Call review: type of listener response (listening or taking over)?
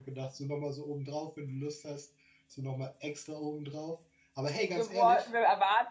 taking over